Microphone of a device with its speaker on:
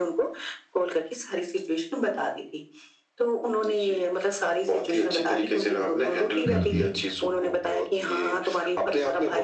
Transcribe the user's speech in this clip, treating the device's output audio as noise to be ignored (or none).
हुँ, हुँ।